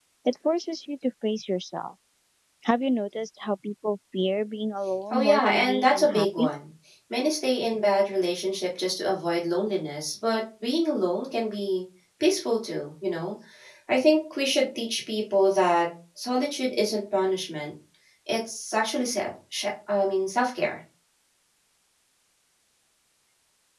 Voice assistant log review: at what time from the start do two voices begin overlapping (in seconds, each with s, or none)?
5.1 s